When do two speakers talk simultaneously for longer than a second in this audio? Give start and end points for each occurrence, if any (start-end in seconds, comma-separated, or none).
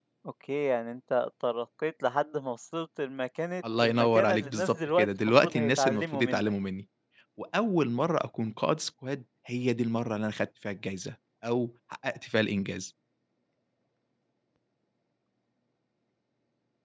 3.8-6.5